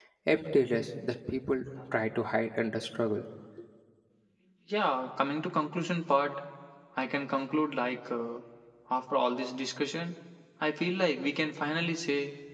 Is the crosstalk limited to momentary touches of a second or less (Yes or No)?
Yes